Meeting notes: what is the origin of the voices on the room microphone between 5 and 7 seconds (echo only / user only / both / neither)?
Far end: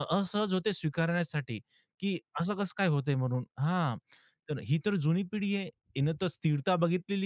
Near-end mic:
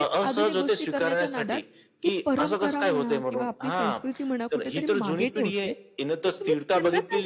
both